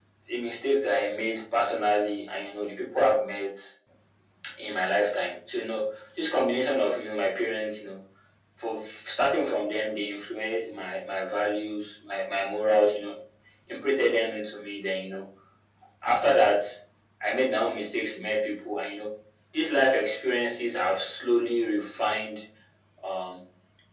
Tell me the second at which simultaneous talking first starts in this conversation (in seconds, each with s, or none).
none